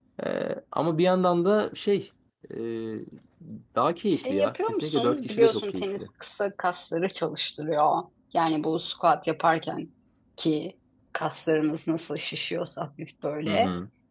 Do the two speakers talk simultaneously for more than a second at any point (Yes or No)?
Yes